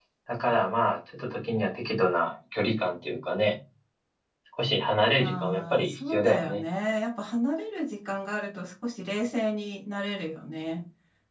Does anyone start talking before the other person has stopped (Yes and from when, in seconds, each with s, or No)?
Yes, from 5.2 s